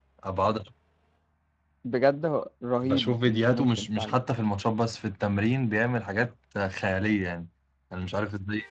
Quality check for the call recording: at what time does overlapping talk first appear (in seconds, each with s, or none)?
2.8 s